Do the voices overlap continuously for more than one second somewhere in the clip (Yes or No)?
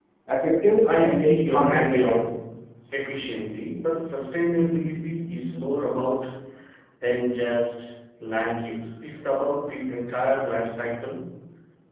Yes